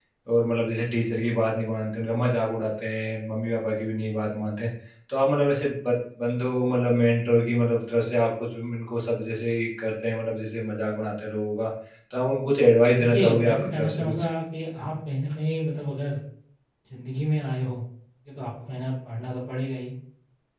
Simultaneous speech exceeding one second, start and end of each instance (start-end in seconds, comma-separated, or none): 13.0-14.2